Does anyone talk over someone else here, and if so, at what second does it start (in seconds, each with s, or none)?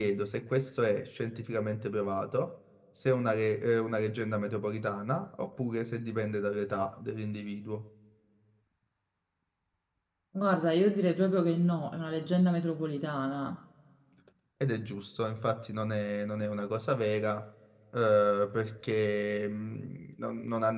none